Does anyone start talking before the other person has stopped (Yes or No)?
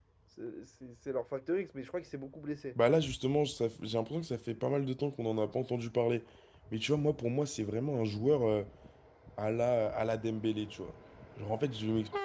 No